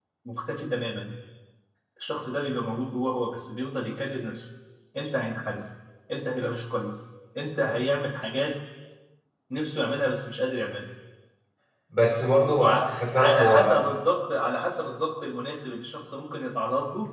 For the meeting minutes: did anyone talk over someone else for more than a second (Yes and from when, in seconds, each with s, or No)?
Yes, from 12.6 s